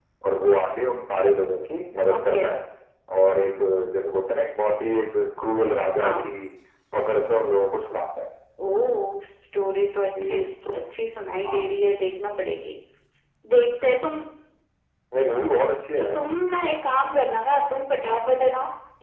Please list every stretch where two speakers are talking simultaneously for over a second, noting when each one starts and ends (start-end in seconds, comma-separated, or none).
none